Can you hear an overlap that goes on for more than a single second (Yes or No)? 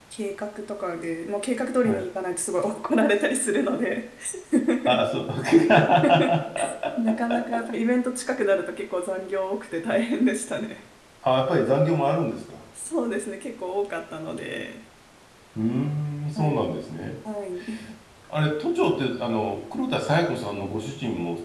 No